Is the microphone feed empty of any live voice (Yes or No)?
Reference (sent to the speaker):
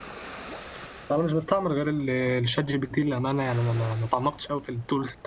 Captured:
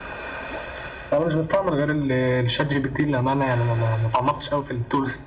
Yes